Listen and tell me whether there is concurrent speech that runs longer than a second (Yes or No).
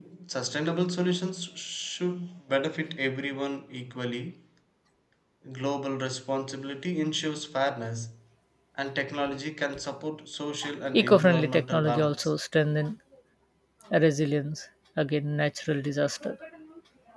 Yes